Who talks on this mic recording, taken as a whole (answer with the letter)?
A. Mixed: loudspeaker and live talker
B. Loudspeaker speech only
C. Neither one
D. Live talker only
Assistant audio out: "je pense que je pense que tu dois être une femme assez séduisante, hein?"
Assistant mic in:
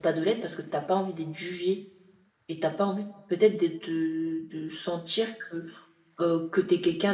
D